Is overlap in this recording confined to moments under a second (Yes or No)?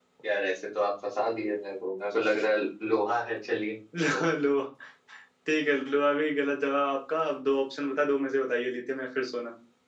Yes